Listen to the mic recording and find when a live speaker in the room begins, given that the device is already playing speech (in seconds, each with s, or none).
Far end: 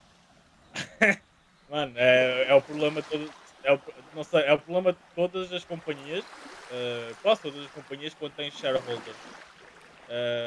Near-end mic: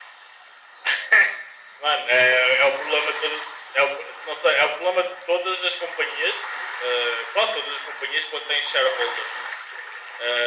none